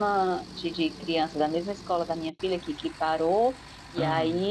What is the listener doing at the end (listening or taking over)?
listening